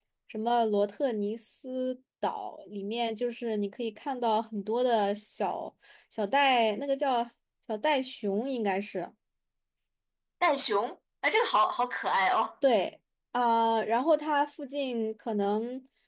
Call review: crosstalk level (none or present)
none